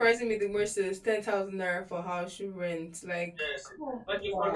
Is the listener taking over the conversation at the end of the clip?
Yes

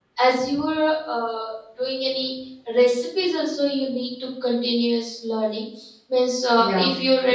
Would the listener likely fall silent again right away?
Yes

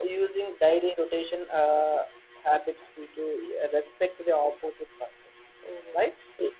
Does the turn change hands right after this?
Yes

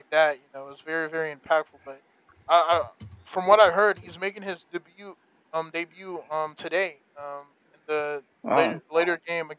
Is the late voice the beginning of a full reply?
No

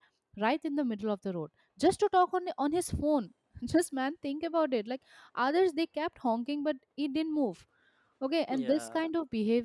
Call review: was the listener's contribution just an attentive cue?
Yes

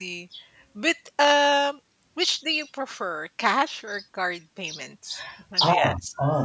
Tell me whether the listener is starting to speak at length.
Yes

